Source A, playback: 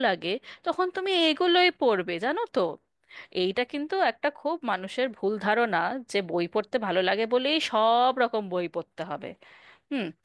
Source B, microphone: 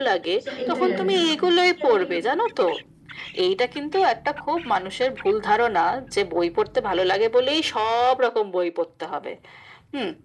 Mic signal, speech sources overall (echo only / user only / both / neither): both